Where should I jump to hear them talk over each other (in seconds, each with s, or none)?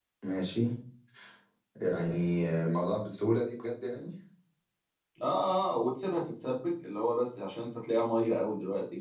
none